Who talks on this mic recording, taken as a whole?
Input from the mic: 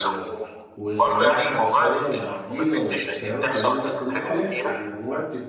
both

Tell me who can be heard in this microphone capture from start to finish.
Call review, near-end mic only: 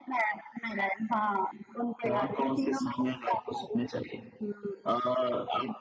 echo only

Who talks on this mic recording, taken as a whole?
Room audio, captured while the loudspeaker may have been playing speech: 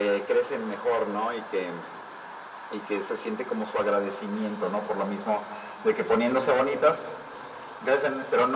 echo only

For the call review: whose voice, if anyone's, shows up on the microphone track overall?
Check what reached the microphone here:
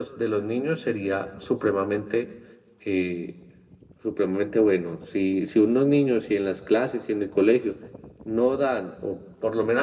echo only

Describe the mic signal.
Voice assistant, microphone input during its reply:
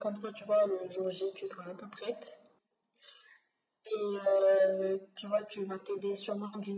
echo only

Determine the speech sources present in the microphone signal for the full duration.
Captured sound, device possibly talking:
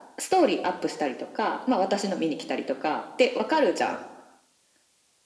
echo only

